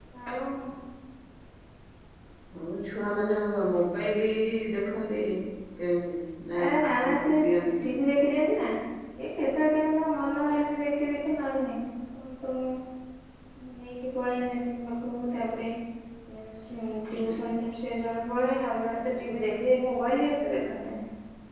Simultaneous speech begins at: 6.6 s

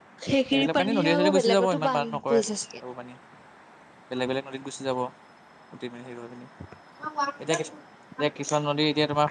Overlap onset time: 0.5 s

